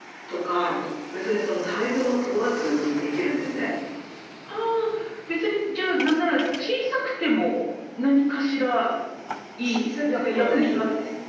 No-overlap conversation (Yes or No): No